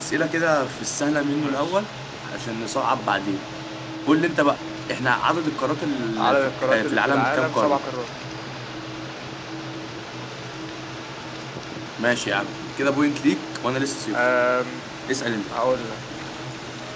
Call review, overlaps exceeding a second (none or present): present